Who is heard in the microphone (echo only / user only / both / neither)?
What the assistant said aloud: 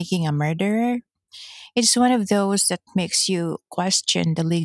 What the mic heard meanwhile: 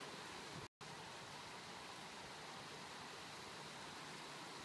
neither